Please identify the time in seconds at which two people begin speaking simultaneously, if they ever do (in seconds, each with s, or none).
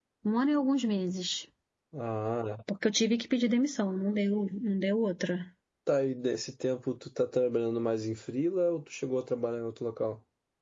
none